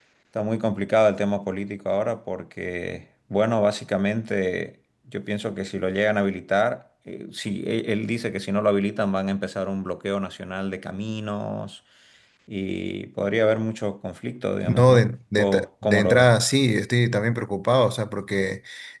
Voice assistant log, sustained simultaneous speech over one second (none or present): present